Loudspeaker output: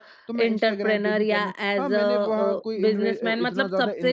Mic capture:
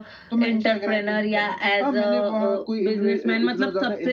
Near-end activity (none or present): none